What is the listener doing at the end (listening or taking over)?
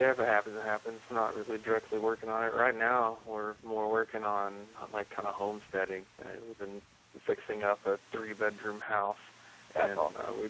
listening